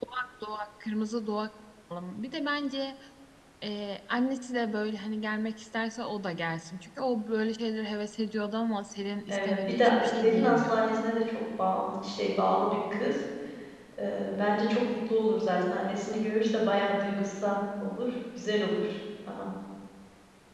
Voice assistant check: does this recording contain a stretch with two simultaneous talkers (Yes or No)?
Yes